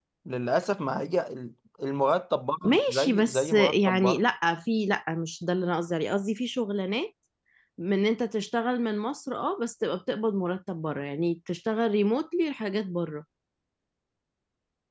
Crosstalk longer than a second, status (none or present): present